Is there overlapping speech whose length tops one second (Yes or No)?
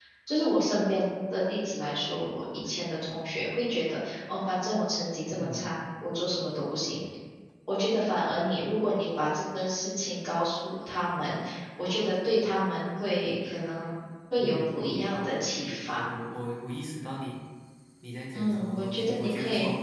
Yes